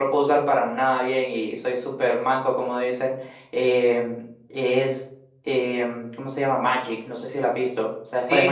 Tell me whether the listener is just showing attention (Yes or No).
No